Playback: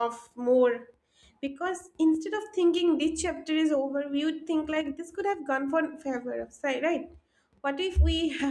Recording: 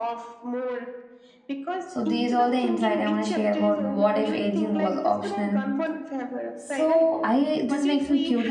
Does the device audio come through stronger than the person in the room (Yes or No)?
No